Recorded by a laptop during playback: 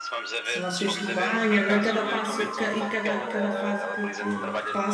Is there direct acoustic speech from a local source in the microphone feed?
Yes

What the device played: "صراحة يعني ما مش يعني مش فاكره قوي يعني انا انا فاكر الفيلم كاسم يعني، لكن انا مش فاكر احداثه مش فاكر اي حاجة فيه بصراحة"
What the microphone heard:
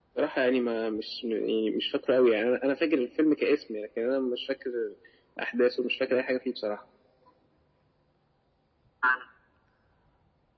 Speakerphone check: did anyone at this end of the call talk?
No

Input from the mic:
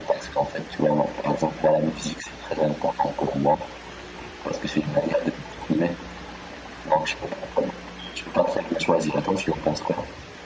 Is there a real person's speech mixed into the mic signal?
No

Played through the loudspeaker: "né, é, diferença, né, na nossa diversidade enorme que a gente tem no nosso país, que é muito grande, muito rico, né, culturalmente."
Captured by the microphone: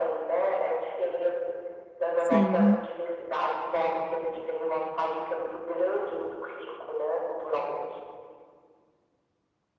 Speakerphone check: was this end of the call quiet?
No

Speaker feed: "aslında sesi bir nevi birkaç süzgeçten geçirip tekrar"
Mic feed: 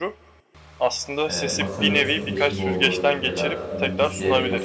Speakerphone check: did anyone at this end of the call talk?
Yes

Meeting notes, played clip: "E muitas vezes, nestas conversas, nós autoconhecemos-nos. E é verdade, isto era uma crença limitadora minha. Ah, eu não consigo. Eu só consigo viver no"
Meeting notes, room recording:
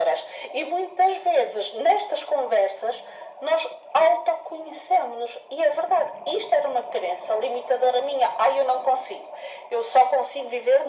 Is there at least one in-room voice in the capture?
No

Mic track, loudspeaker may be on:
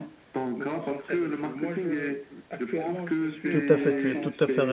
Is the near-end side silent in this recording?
No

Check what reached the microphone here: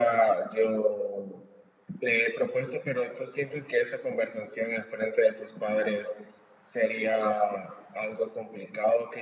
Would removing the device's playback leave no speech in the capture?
Yes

